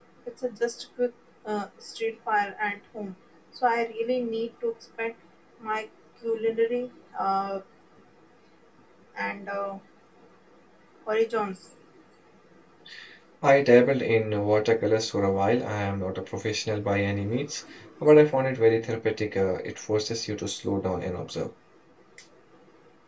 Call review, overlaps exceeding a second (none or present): none